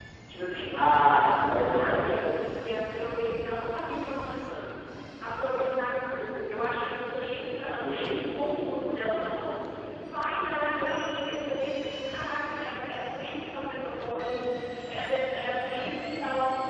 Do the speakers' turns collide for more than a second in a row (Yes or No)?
Yes